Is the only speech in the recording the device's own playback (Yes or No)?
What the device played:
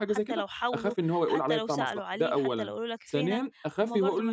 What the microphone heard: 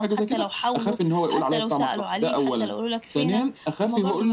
Yes